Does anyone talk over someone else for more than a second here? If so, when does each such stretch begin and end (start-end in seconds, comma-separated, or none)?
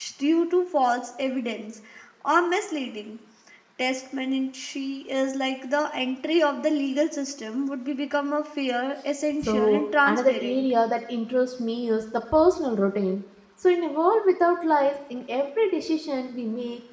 9.4-10.7